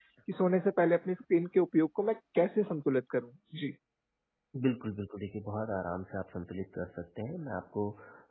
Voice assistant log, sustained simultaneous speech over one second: none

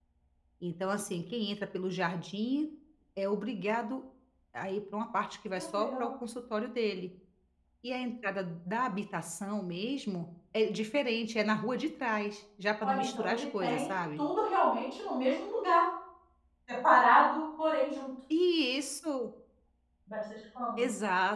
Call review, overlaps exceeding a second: present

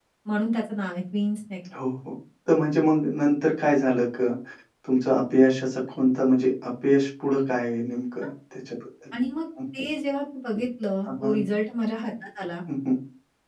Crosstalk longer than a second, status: none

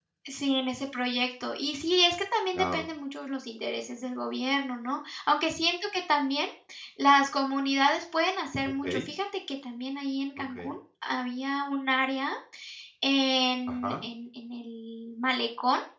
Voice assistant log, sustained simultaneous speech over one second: none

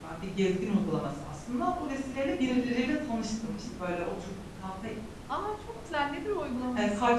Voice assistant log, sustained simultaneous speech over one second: none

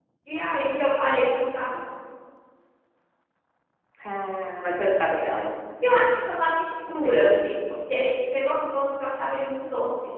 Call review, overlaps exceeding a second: none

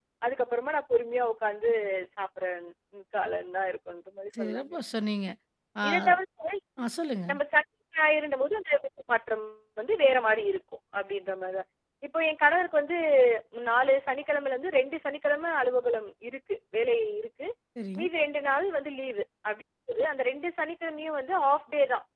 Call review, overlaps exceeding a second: none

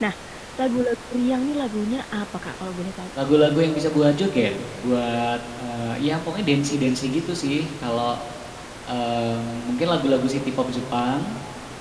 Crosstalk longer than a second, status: none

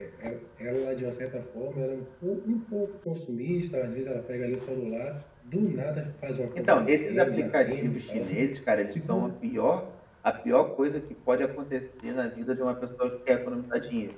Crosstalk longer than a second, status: present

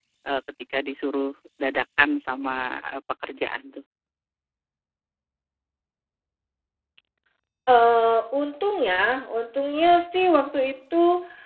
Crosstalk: none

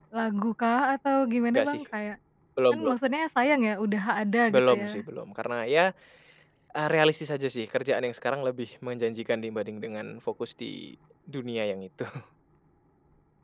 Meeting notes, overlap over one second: none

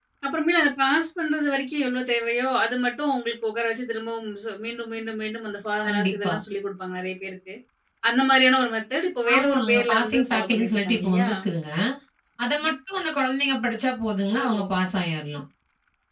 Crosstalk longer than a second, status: present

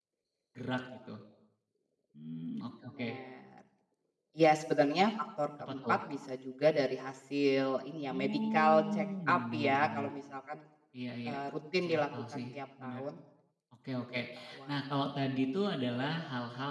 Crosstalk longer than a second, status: present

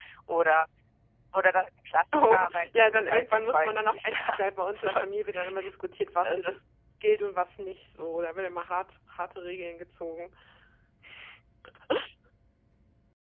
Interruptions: present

